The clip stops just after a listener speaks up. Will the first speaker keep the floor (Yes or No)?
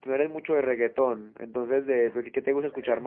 No